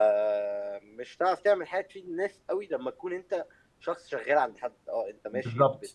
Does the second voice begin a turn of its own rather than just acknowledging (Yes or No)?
No